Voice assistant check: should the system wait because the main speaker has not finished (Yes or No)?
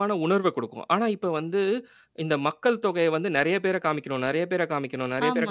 No